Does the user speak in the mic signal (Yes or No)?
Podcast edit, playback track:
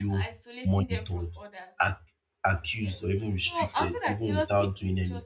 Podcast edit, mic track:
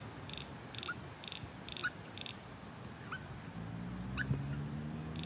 No